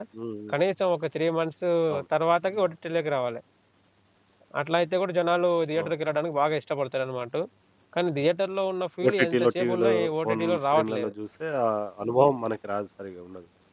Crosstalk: present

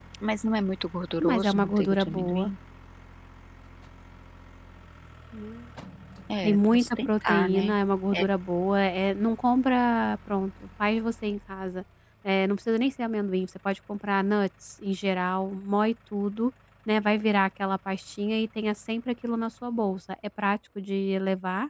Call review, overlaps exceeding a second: present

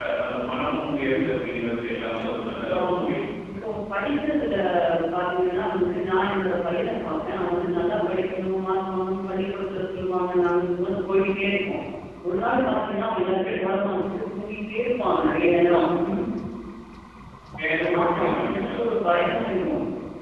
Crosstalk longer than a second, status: present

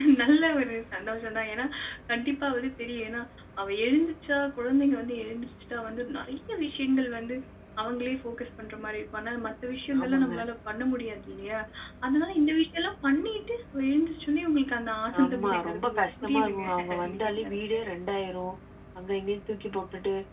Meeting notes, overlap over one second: present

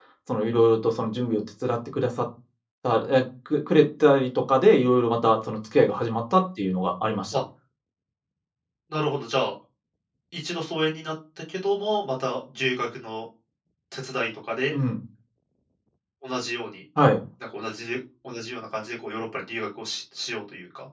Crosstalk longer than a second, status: none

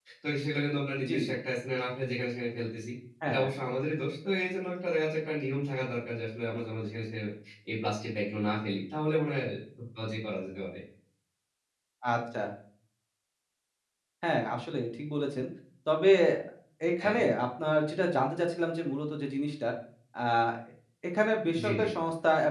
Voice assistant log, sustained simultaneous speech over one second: none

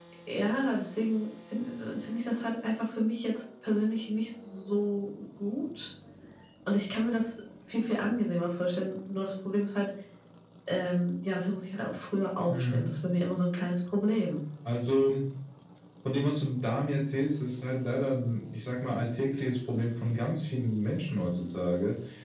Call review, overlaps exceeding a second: none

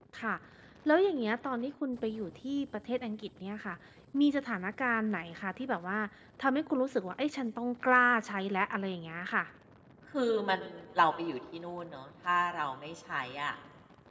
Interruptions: none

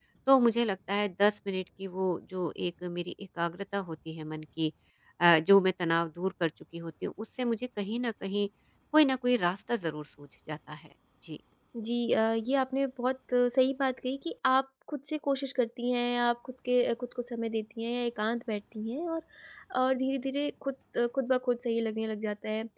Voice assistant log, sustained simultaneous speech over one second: none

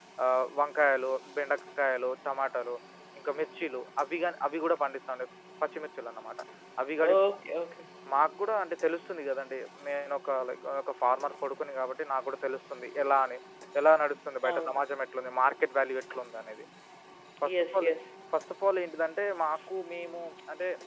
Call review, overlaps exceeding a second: none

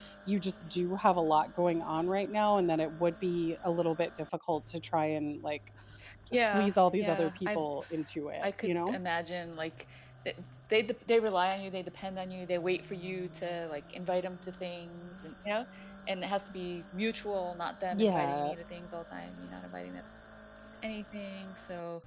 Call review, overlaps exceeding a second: present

